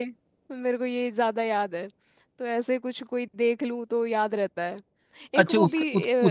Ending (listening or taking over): taking over